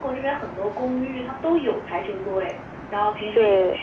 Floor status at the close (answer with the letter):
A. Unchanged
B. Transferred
A